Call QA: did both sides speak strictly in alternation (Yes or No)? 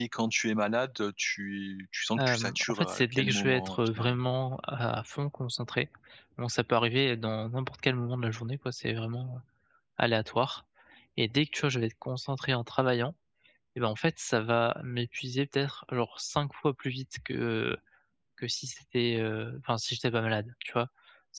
No